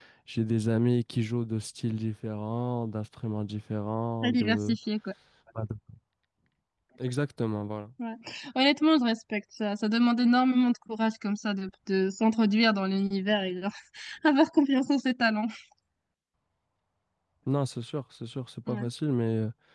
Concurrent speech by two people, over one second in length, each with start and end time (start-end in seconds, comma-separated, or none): none